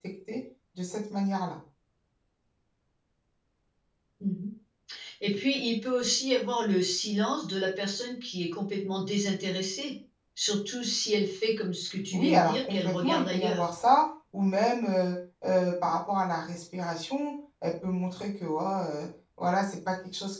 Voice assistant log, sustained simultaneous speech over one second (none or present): present